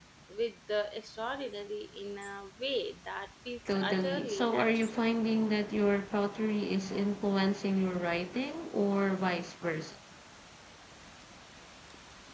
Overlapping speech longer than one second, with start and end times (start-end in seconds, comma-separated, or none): 3.7-5.0